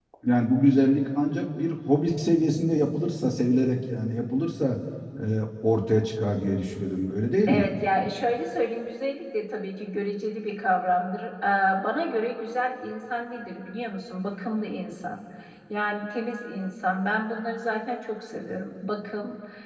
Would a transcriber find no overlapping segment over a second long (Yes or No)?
Yes